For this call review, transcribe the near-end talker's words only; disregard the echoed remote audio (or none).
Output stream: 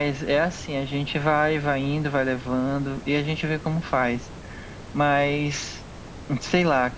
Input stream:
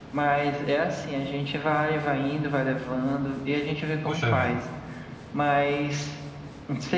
Puxa vida.